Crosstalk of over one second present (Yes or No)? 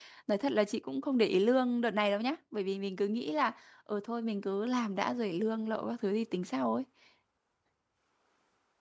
No